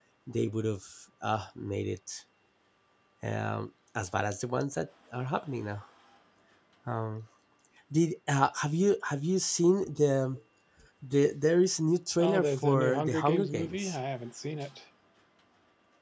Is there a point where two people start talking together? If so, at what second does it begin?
12.2 s

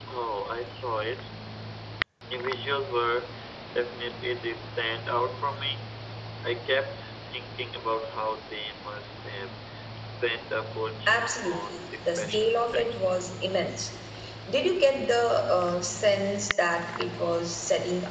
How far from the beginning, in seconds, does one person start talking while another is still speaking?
11.1 s

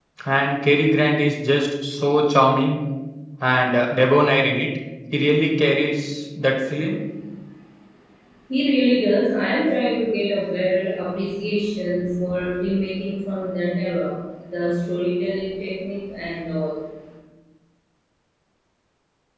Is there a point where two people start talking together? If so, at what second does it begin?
none

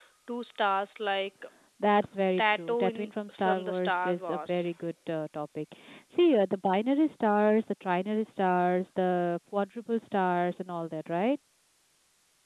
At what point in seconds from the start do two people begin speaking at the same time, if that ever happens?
2.4 s

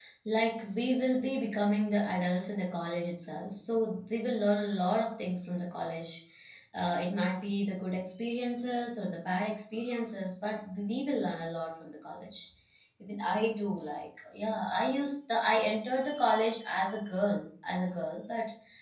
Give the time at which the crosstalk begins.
none

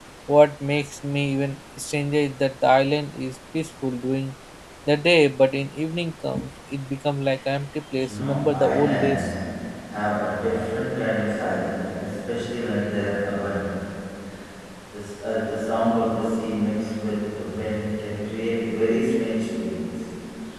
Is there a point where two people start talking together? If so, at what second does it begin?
8.0 s

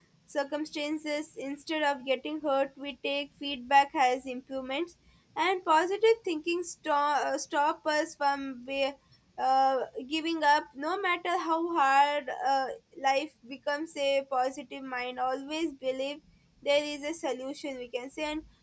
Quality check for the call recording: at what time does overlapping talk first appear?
none

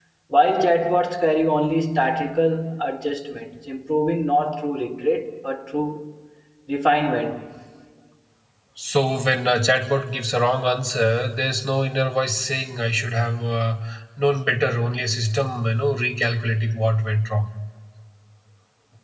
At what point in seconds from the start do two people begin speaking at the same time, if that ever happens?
none

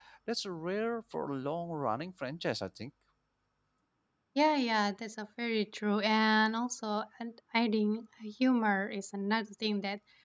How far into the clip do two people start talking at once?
none

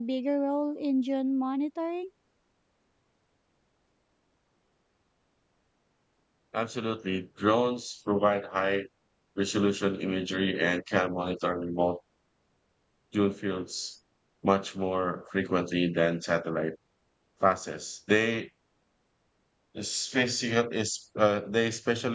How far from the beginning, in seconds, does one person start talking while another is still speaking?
none

